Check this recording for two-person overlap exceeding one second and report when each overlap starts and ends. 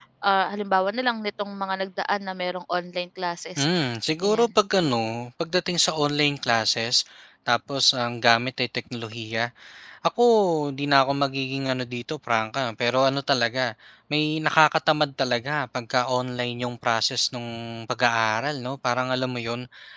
none

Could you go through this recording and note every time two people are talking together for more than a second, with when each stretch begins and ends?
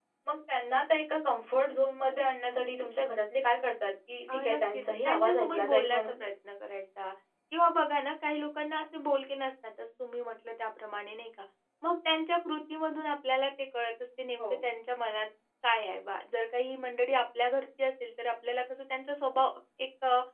4.3-6.2

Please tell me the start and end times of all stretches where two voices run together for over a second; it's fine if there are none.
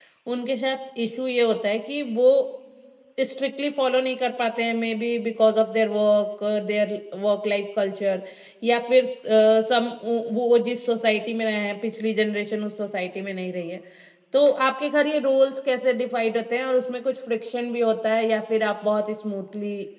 none

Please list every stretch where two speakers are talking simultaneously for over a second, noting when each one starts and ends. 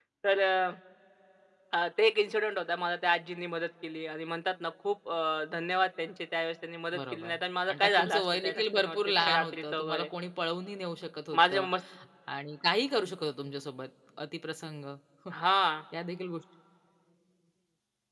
7.7-10.1

